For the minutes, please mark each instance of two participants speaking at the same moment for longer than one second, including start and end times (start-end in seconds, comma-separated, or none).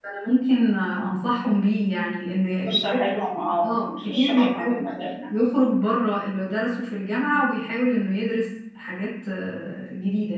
3.6-4.9